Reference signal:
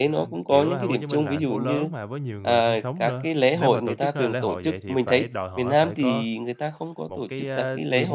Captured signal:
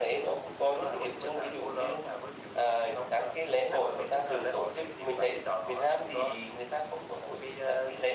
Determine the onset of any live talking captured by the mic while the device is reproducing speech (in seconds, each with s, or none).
none